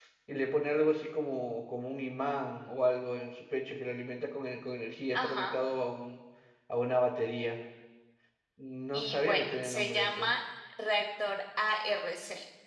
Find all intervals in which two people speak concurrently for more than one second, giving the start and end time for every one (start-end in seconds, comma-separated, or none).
8.9-10.3